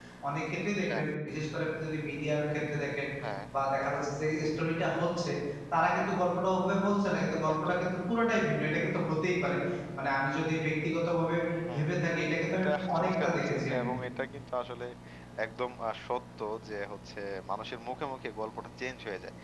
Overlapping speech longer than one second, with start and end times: 12.5-13.9

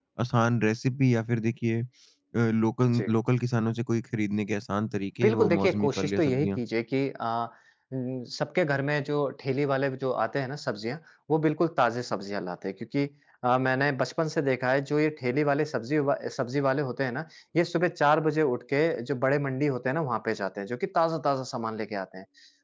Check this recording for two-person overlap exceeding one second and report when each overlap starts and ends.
5.2-6.6

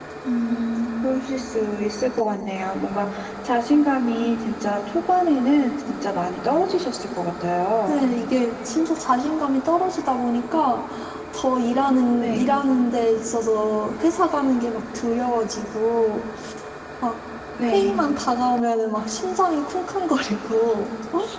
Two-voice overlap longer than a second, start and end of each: none

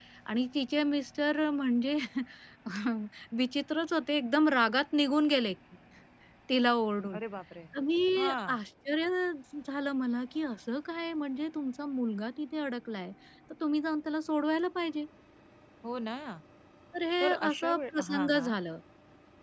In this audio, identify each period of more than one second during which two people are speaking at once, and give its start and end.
17.2-18.5

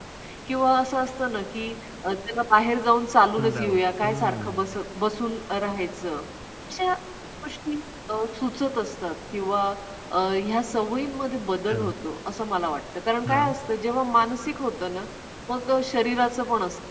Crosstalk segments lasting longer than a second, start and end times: 3.4-4.8

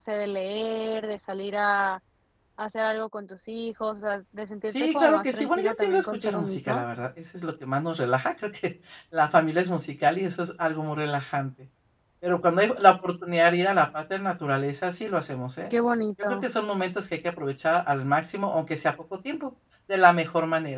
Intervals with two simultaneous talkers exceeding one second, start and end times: 4.8-6.8

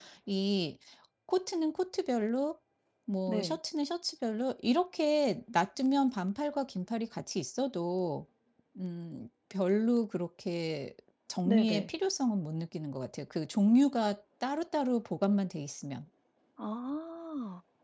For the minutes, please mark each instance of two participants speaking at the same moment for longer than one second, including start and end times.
none

